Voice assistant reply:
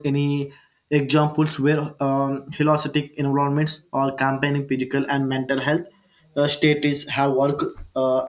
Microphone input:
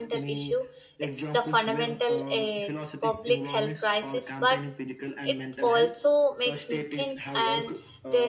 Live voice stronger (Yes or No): Yes